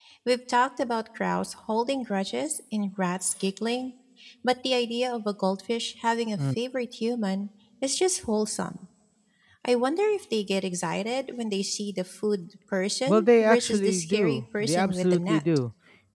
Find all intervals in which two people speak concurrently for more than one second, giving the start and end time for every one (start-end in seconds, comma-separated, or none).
13.1-15.4